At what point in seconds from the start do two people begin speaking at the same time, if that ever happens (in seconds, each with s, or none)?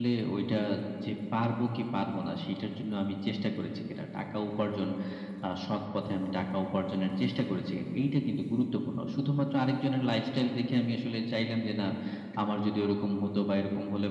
none